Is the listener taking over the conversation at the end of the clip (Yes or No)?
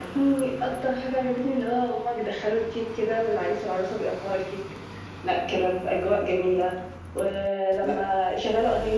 No